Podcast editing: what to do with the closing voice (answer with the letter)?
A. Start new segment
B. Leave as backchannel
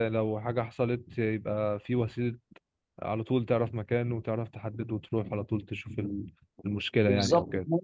A